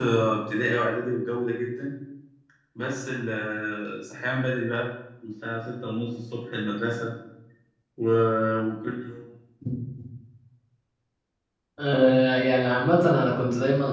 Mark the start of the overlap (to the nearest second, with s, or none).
none